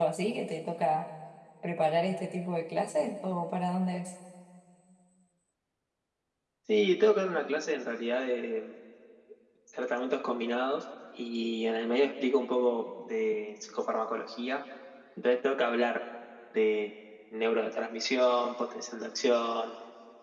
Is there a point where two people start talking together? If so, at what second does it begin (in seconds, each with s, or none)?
none